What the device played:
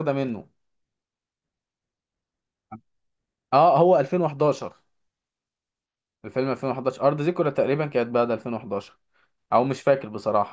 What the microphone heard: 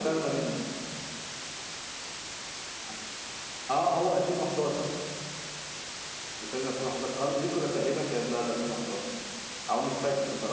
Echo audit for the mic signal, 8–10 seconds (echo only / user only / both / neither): echo only